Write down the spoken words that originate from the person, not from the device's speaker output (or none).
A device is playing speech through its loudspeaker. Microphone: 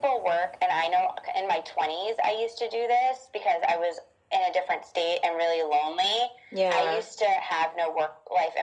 Yeah.